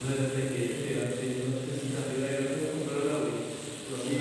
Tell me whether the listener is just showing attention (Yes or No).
No